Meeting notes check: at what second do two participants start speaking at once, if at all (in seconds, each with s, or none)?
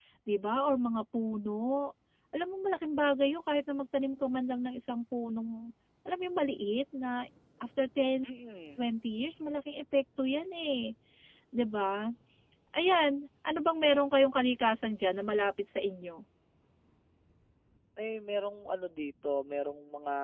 none